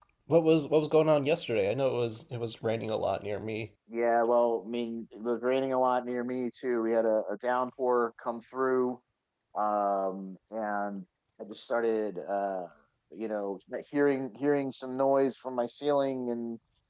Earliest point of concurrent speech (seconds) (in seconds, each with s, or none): none